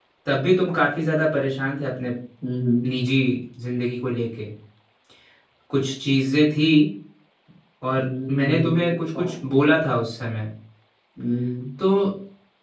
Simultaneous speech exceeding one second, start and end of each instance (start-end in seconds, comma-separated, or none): 8.0-9.2